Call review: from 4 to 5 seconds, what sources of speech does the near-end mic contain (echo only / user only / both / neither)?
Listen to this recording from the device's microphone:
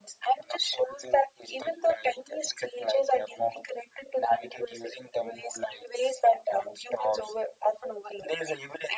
echo only